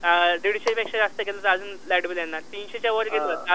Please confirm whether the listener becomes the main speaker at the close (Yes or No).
No